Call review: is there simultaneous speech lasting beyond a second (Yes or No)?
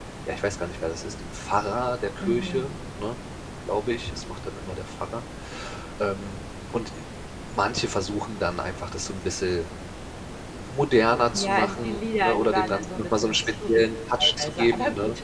Yes